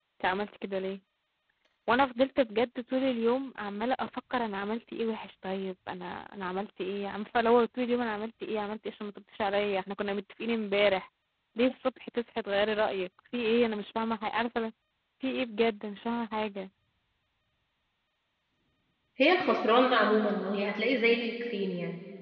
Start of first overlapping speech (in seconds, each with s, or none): none